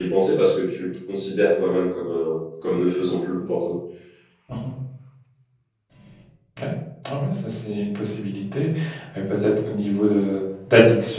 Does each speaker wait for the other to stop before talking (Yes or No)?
Yes